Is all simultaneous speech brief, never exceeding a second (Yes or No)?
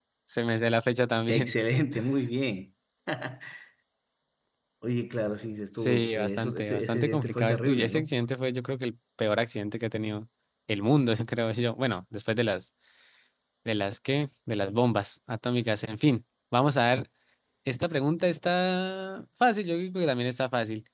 No